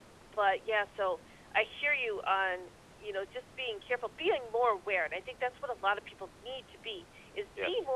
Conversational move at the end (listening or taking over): listening